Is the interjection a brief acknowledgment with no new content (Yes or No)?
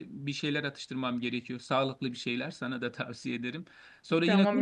No